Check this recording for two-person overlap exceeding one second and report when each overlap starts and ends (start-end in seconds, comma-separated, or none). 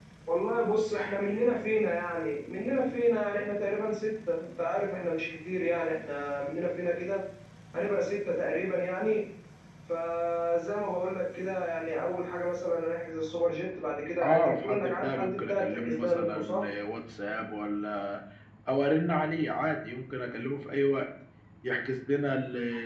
14.2-16.7